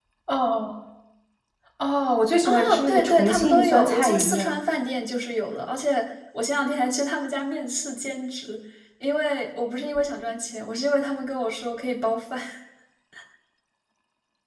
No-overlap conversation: No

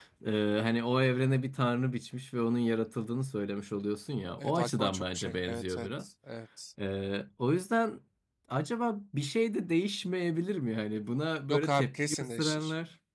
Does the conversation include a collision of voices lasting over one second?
Yes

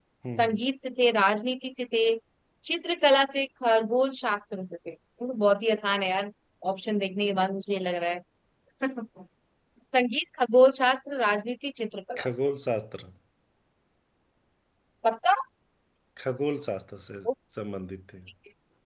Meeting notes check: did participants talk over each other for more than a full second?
No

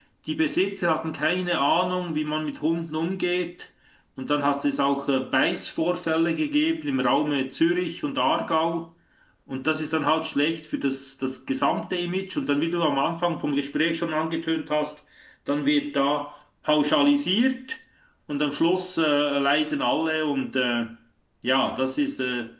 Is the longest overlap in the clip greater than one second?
No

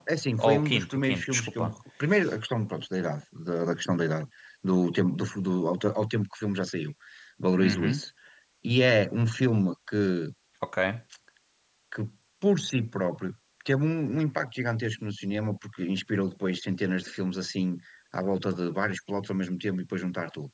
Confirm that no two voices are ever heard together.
No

